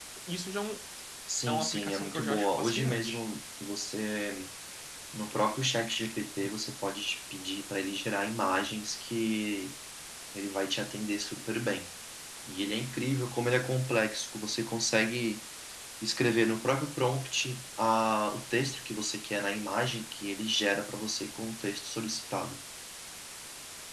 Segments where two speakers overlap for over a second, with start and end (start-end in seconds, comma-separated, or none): 1.5-3.2